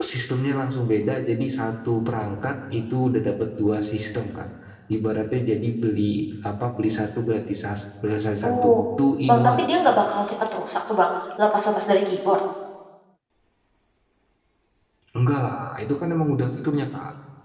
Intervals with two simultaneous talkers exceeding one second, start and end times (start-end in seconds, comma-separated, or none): none